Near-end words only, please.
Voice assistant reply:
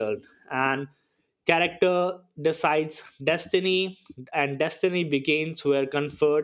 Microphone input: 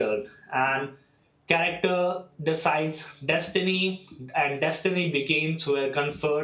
none

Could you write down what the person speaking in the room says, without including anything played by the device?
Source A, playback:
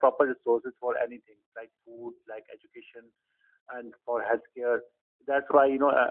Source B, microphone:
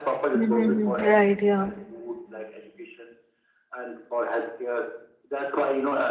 Mm-hmm. Right, yeah.

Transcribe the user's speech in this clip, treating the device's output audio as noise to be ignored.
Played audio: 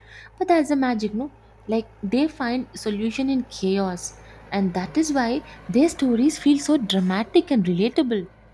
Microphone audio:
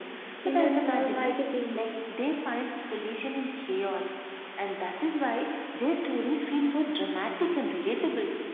in a small magazine,

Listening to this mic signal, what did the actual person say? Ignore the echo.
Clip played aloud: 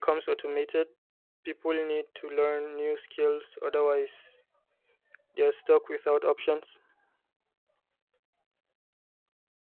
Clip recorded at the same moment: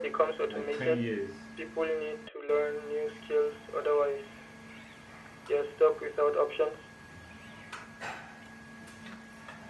like ten years.

